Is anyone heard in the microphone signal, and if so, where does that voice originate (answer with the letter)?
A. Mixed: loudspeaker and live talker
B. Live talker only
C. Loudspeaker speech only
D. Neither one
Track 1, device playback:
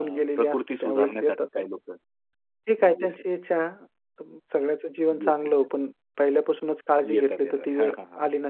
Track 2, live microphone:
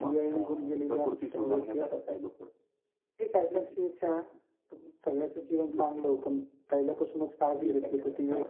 C